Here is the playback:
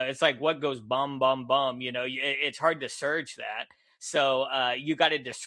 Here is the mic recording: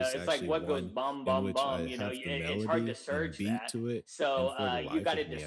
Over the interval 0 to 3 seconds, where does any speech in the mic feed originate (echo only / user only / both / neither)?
both